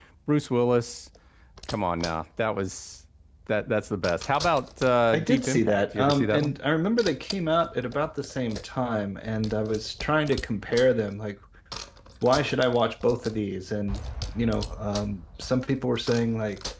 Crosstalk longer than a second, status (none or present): present